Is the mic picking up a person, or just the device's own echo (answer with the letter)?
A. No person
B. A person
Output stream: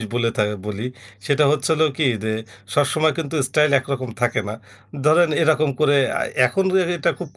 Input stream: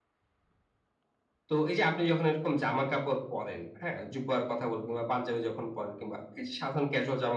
B